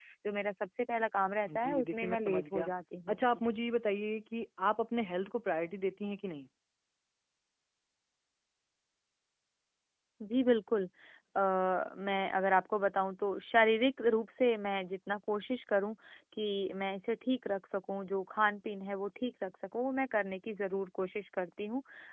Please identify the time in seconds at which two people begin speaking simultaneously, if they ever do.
1.4 s

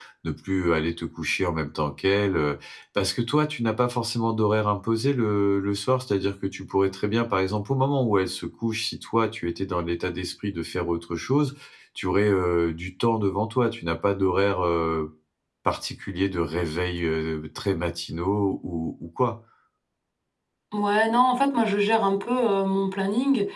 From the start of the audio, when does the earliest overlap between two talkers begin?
none

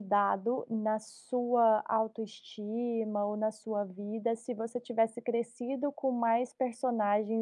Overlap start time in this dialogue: none

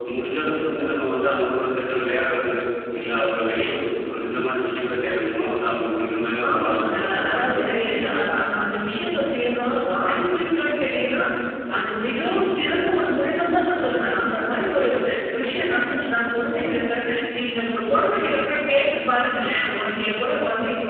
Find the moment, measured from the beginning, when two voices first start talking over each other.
6.4 s

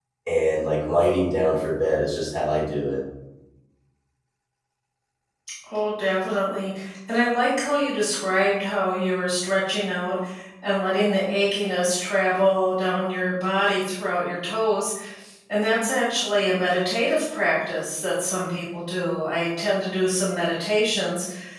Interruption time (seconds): none

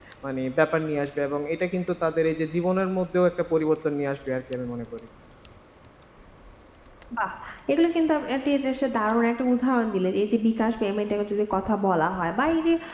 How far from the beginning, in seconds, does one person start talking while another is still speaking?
none

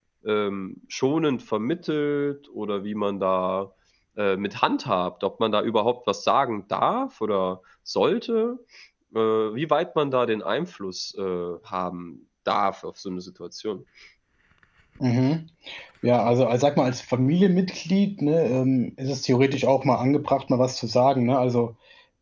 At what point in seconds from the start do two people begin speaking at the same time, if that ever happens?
none

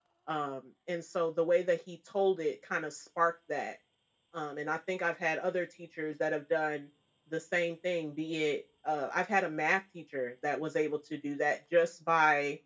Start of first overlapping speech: none

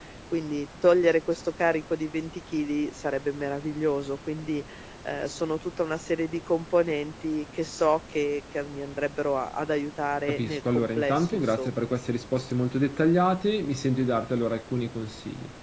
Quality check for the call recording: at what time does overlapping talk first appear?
10.3 s

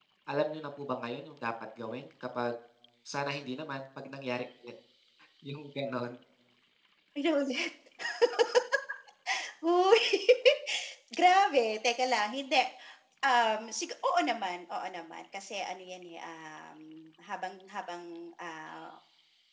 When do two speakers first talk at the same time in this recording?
none

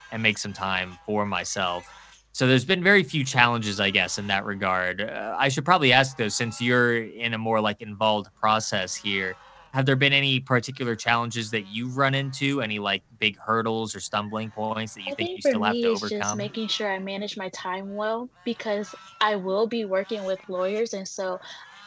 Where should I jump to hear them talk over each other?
15.1 s

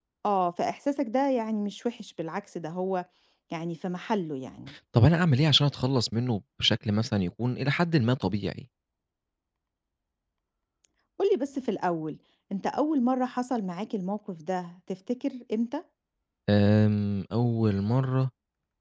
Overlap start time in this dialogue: none

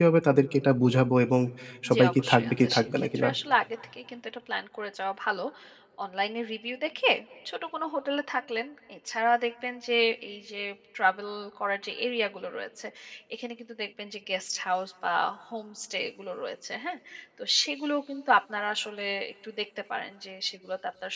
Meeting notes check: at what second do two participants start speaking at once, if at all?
1.9 s

